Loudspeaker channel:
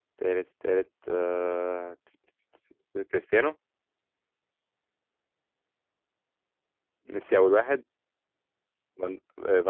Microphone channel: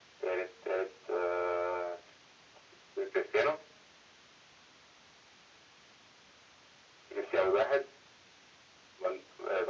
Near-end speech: none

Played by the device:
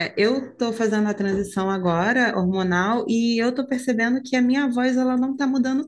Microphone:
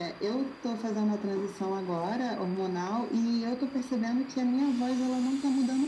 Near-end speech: none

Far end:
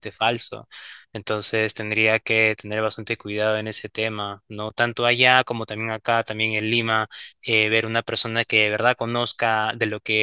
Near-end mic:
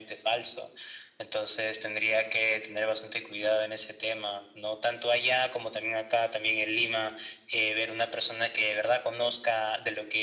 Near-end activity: none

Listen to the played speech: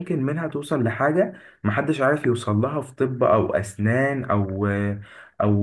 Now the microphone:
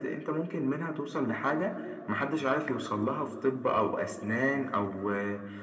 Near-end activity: none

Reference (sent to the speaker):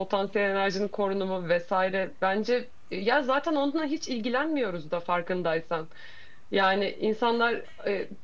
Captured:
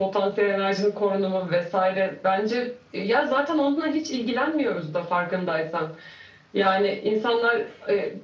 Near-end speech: none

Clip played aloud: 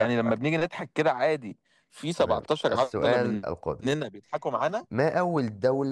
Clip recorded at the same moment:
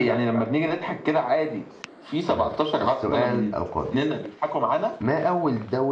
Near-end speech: none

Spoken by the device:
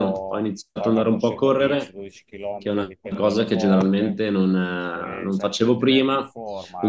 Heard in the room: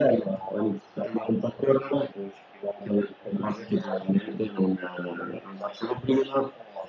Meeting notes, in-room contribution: none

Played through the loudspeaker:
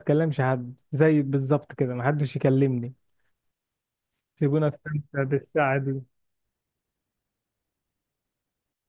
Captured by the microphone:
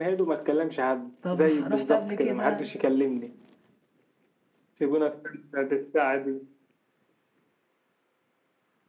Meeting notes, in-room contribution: present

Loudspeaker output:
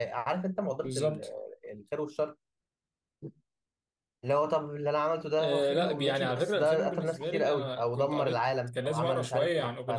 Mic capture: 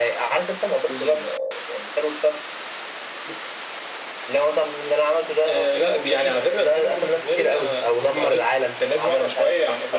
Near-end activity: none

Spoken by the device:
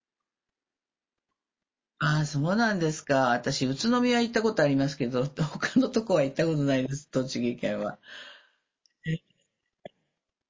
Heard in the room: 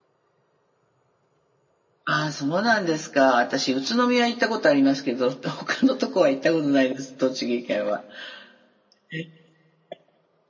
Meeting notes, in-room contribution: none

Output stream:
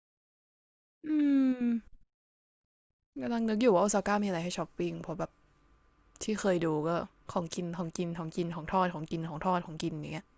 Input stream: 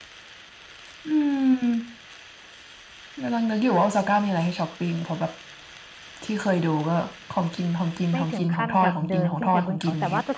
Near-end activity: present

